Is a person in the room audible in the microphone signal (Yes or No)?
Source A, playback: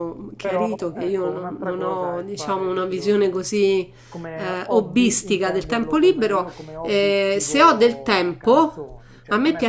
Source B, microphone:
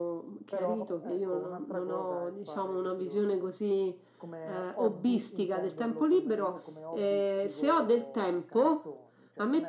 No